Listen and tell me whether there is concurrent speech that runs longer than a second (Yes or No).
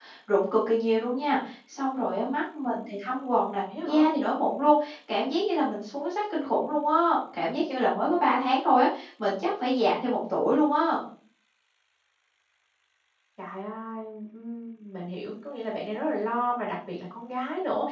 No